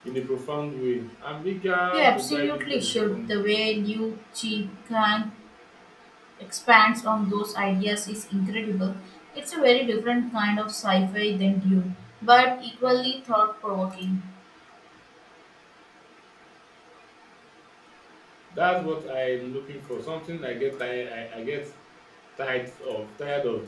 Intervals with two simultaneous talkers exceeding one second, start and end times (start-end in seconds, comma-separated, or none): 1.9-3.4